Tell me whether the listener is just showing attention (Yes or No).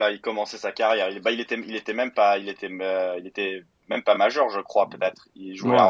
No